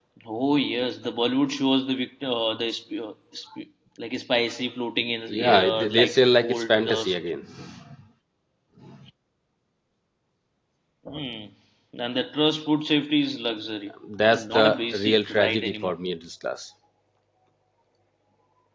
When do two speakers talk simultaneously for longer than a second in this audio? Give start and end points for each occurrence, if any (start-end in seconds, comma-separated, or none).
5.3-7.2, 14.2-15.9